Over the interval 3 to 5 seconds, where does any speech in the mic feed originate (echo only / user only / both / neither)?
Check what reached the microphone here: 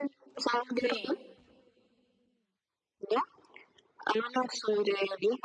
echo only